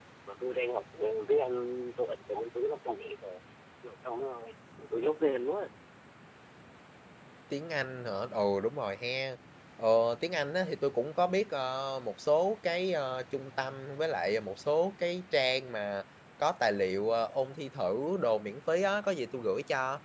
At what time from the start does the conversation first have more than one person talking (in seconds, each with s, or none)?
none